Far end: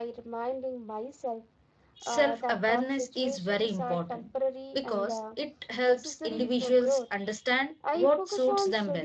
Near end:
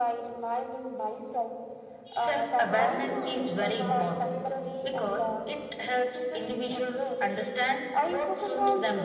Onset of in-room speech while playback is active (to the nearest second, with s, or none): 3 s